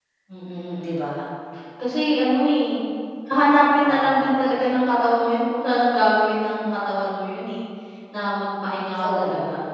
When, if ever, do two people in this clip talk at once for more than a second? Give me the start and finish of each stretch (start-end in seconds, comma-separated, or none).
none